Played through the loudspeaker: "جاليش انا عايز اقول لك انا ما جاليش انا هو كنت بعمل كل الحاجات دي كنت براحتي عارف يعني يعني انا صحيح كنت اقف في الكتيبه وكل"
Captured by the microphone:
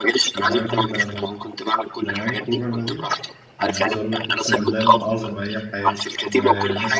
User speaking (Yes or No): Yes